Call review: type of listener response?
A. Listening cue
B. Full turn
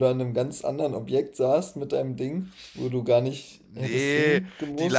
B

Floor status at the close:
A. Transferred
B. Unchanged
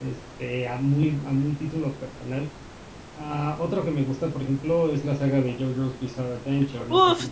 A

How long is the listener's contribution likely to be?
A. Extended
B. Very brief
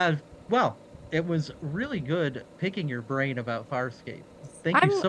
A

